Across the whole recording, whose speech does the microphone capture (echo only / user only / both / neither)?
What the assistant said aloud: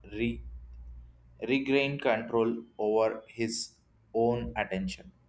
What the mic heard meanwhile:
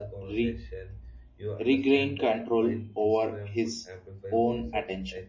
both